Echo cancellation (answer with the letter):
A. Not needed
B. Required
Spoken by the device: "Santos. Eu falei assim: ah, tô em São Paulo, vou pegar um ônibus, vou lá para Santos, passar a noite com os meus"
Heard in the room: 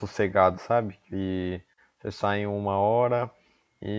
A